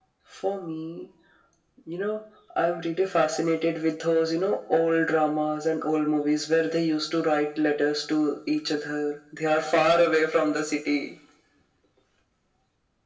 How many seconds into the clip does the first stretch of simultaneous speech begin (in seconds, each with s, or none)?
none